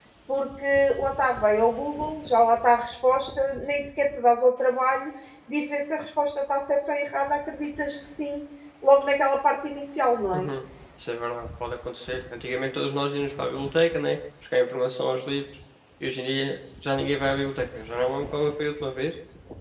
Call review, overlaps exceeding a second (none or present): none